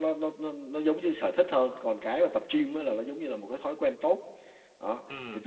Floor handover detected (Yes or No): No